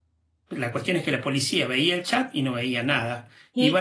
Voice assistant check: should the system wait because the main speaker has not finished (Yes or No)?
Yes